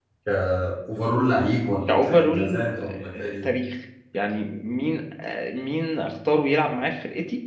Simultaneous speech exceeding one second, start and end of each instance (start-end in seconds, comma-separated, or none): 1.9-3.5